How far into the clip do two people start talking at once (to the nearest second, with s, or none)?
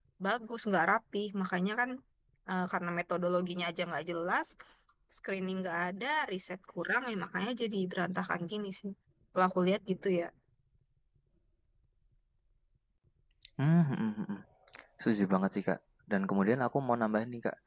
none